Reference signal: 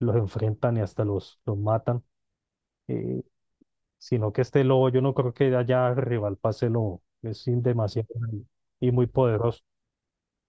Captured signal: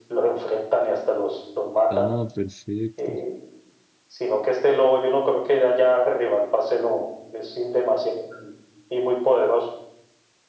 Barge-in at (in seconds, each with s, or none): 1.9 s